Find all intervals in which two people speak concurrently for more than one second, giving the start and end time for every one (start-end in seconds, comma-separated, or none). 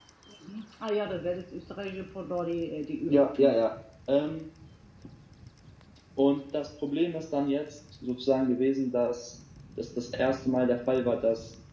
none